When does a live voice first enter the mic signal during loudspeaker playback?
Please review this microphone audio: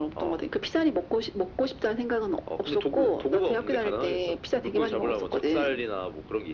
none

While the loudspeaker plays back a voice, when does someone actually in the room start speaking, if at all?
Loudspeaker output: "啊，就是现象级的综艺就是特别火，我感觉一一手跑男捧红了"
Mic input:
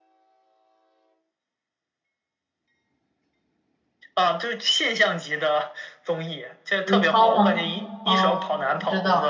7 s

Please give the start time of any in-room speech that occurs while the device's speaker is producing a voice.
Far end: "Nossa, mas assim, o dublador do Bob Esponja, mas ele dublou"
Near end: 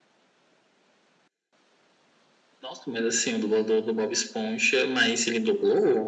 none

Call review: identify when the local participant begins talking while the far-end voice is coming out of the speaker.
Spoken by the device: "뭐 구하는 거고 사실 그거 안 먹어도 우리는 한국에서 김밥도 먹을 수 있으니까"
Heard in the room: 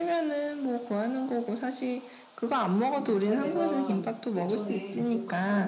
3 s

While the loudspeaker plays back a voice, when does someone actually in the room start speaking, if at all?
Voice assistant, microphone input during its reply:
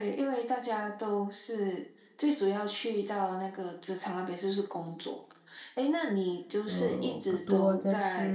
7 s

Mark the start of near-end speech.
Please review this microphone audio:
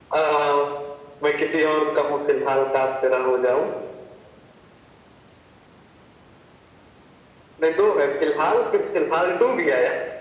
none

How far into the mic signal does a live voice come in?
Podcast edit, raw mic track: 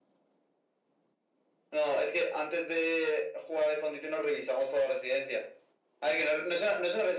none

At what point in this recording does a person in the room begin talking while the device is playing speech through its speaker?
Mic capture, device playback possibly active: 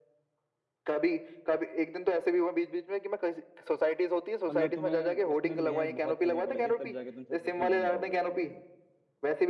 4 s

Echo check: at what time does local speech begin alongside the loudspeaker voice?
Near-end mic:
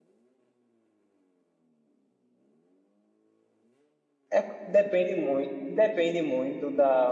4 s

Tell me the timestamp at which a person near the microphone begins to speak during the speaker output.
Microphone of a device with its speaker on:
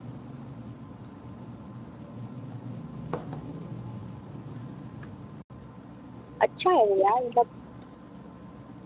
6 s

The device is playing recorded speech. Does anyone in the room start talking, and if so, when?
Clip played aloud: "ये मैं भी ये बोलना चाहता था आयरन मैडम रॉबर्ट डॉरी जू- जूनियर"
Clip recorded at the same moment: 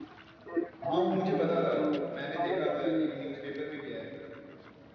1 s

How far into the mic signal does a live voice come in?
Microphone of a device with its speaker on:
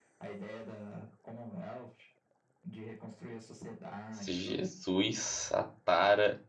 4 s

